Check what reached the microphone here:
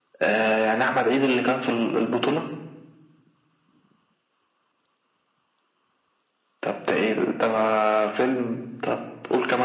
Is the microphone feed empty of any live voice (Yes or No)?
Yes